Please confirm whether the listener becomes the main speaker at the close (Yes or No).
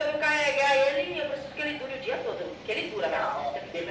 Yes